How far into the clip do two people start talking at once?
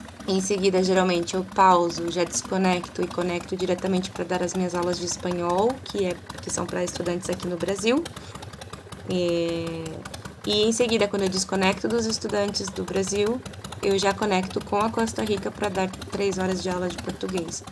none

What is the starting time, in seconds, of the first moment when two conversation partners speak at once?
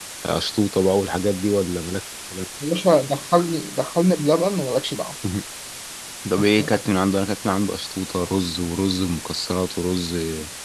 none

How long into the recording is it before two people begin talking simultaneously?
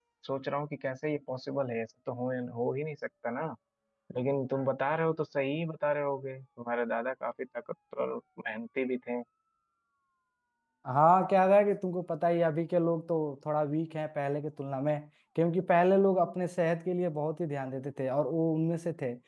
none

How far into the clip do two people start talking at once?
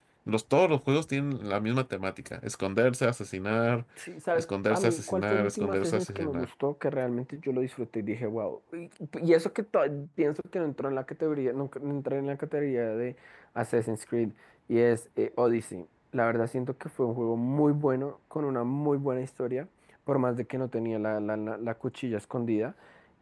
4 s

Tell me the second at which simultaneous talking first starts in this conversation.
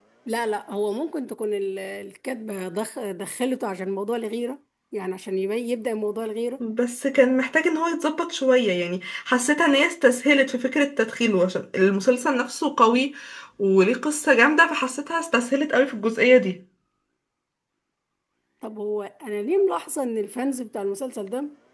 none

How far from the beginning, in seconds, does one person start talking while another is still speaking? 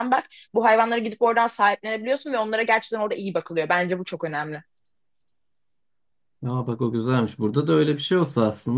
none

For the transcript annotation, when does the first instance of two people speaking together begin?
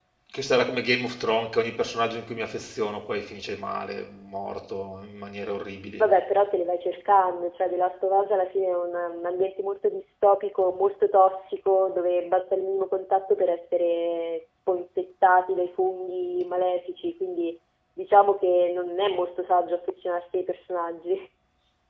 none

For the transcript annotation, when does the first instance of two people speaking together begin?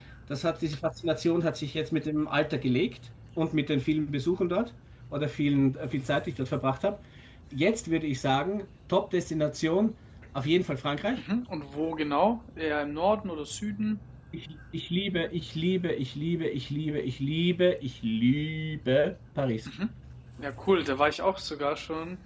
none

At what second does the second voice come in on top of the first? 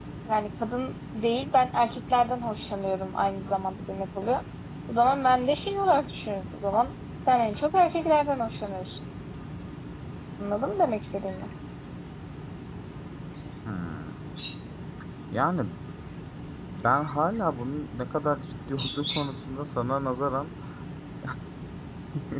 none

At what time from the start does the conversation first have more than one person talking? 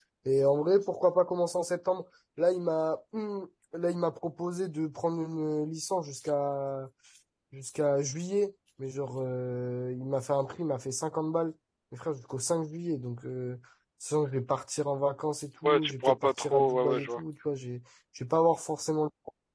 16 s

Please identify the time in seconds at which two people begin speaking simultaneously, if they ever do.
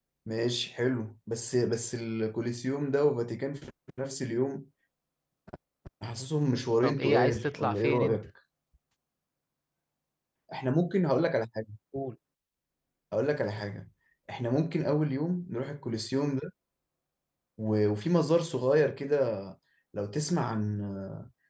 7 s

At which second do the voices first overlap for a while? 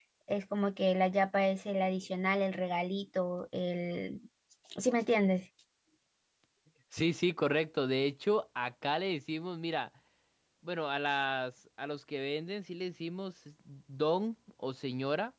none

